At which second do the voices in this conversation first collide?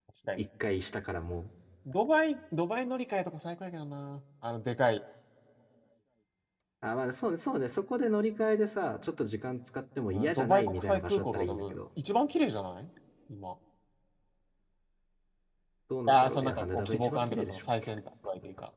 10.1 s

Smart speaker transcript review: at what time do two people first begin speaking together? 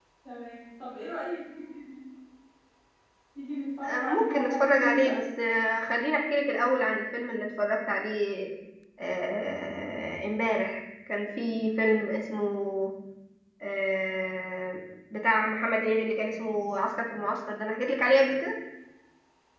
3.8 s

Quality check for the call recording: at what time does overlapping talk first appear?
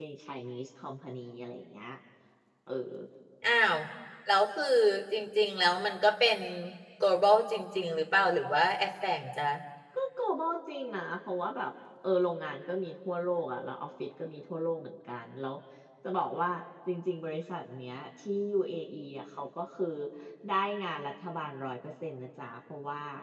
none

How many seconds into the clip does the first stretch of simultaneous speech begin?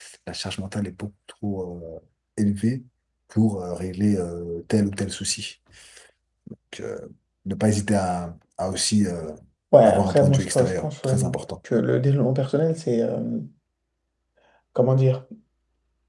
9.8 s

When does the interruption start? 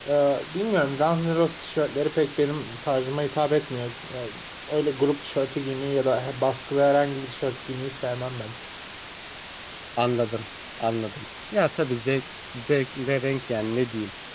none

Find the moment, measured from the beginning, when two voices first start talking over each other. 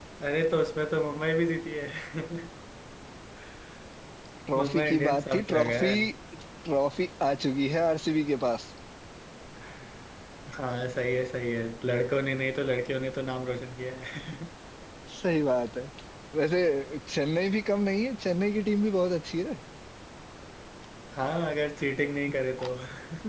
4.6 s

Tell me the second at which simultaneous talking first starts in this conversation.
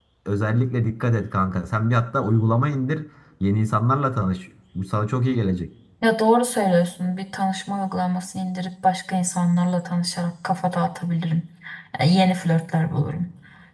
none

